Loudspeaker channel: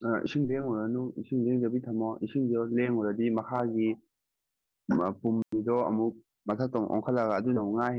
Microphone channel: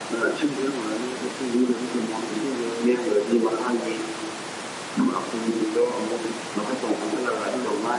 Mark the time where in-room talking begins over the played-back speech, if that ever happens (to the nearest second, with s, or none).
none